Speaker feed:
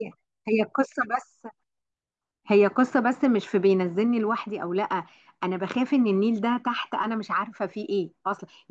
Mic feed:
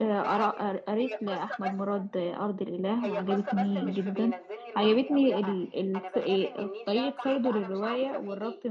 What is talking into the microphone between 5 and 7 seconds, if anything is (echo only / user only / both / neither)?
both